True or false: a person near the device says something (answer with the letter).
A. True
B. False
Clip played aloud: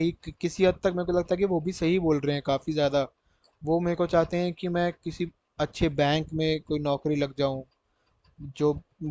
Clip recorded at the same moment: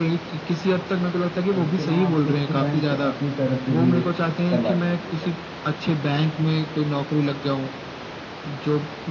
A